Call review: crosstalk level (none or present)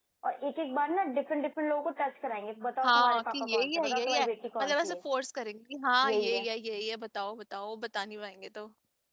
present